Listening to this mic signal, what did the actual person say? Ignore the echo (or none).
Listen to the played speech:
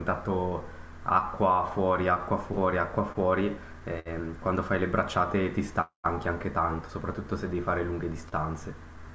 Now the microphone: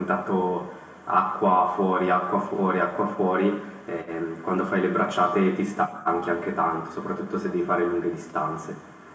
none